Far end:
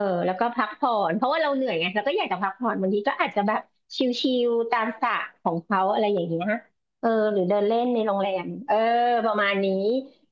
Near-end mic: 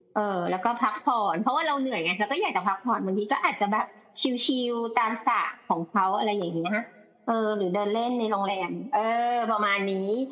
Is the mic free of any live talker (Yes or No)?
Yes